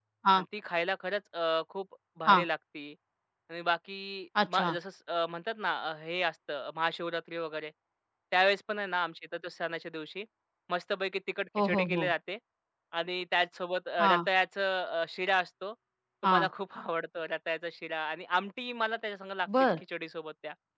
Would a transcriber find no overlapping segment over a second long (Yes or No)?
Yes